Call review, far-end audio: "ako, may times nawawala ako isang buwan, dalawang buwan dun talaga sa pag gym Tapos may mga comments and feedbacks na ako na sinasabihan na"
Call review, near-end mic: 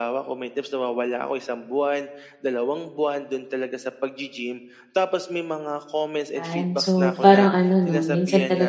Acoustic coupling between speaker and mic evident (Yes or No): Yes